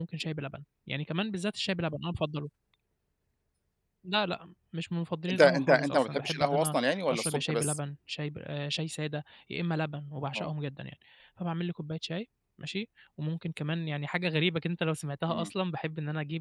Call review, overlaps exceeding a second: present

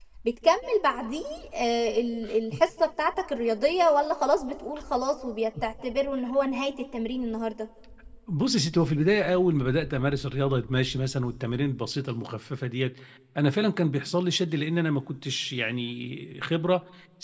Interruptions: none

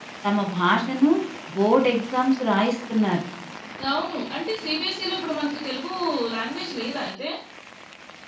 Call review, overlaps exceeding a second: none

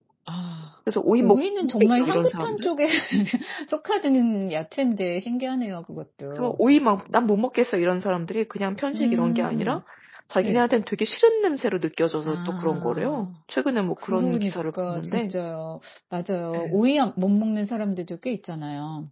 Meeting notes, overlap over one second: present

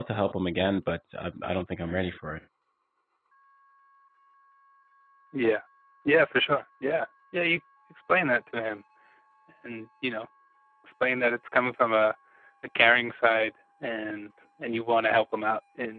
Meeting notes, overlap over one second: none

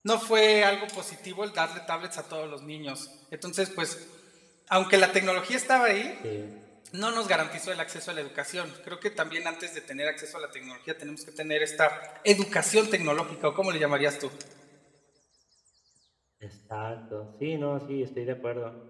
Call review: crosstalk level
none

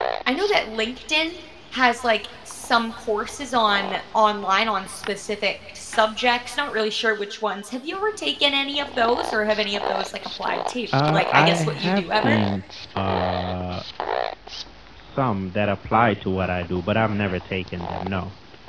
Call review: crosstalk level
present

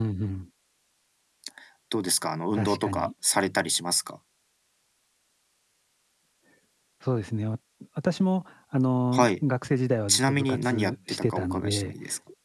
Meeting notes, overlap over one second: present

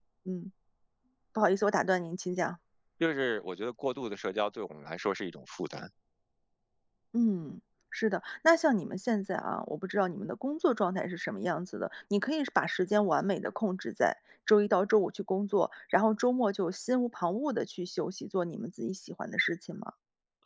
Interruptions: none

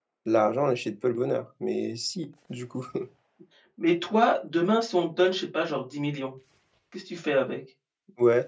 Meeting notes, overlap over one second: none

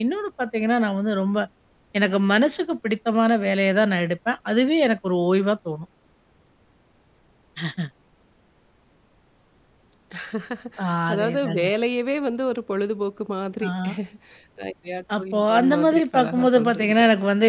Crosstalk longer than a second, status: present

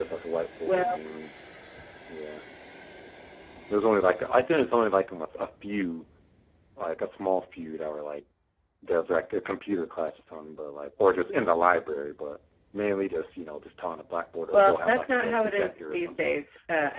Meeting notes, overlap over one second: present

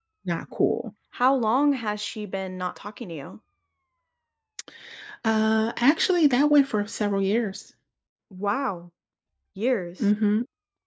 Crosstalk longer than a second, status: none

